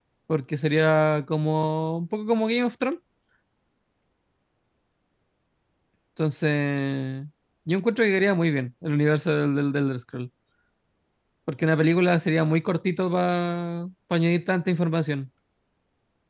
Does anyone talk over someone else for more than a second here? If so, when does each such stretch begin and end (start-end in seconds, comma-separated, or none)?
none